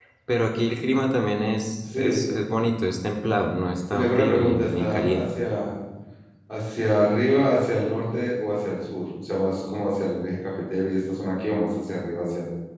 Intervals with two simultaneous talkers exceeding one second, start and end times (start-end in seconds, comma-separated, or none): 3.9-5.2